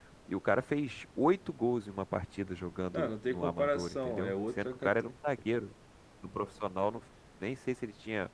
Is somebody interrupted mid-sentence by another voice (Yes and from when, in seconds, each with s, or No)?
Yes, from 2.9 s